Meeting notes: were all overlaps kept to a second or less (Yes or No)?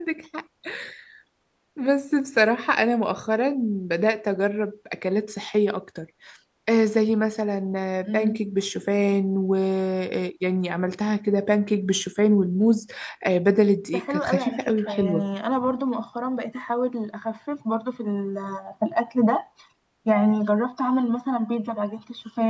No